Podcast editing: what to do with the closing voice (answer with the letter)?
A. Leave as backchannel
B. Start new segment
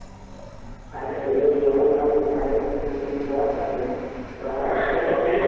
B